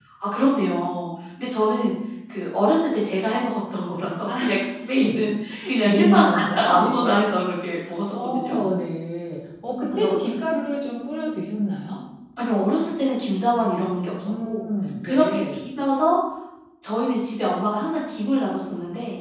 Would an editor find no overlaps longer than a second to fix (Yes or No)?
No